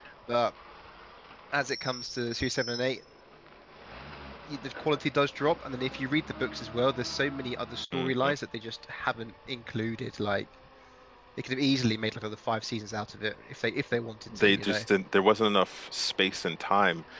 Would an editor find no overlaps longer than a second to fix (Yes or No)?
Yes